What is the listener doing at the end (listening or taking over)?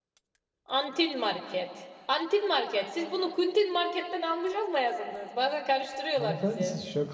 taking over